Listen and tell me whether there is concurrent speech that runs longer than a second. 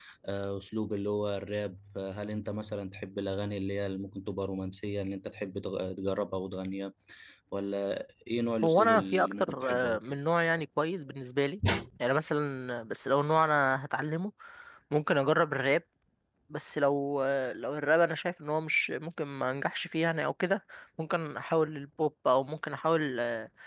Yes, from 8.6 s

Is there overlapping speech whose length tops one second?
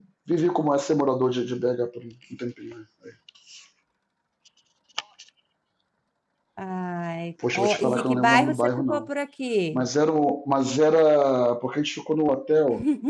Yes, from 7.5 s

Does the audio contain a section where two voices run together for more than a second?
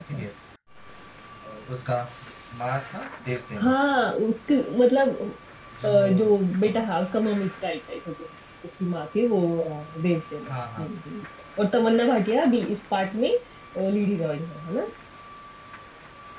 No

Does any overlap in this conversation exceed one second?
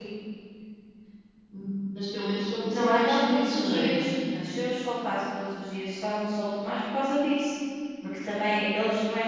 Yes, from 2.7 s

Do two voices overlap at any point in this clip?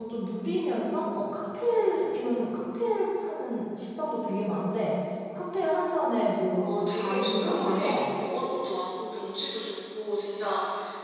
Yes, from 6.5 s

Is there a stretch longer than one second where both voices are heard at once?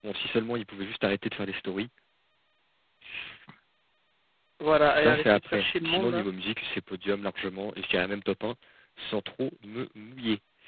Yes, from 4.8 s

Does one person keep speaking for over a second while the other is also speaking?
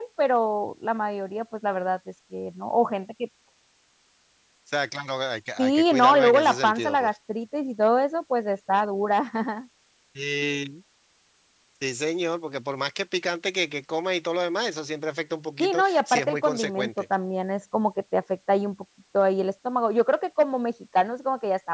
Yes, from 5.6 s

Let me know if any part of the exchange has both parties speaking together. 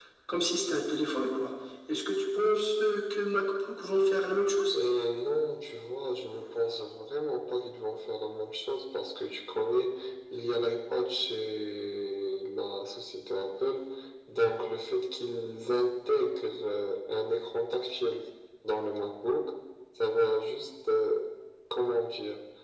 No

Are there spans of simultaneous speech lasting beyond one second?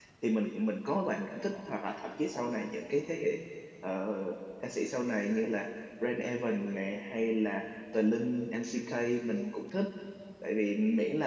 No

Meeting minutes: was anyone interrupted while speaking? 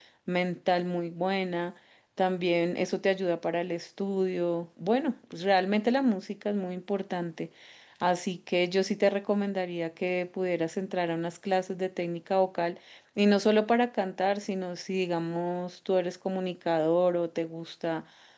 No

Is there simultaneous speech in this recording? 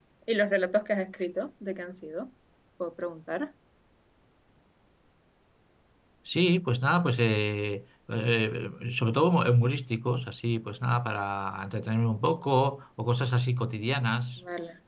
No

